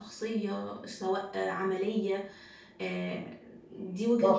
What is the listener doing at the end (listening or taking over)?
taking over